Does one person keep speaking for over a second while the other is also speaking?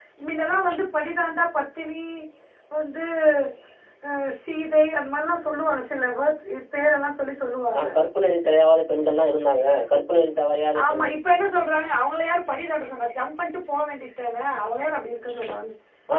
No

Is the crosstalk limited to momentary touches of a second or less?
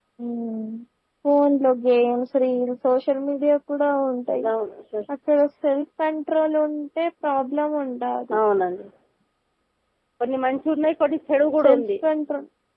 Yes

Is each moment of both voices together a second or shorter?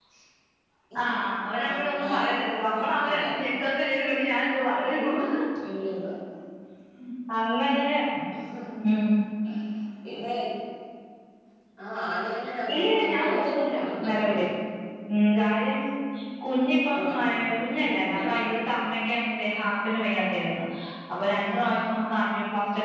No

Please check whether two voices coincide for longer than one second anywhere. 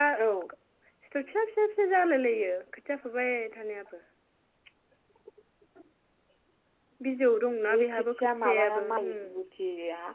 Yes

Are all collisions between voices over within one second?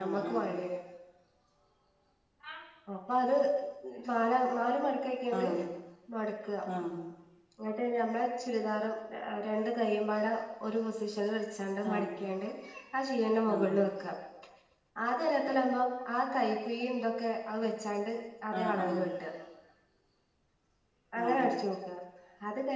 Yes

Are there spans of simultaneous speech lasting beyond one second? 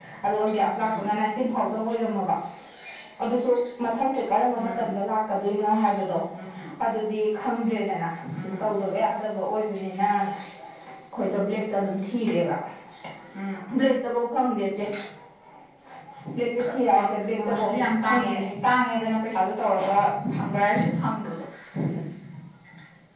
Yes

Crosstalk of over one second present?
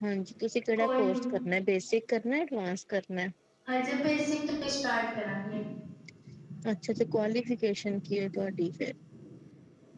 No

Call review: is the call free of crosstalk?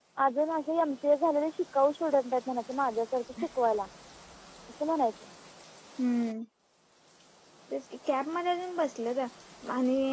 Yes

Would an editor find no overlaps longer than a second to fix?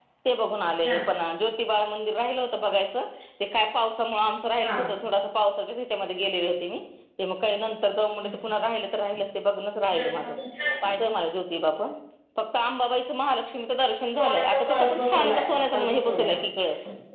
No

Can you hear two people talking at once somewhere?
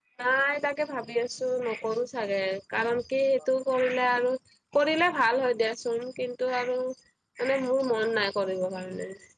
No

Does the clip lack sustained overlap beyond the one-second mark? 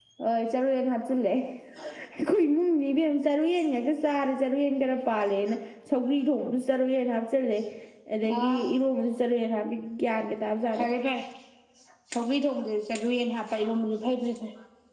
Yes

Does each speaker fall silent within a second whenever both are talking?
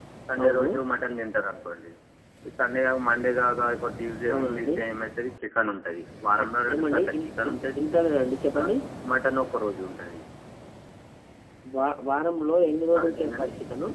No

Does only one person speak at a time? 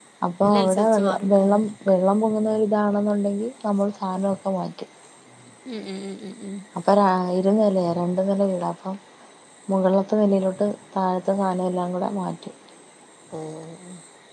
No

